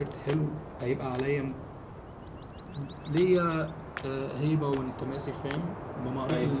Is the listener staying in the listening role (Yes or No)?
Yes